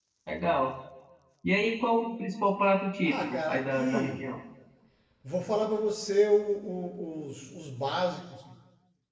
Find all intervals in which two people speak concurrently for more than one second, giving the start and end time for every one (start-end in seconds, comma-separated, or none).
3.0-4.2